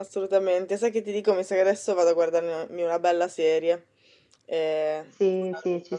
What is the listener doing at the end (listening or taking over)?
taking over